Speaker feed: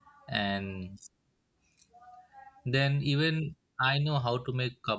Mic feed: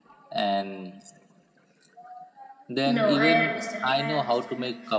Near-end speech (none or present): present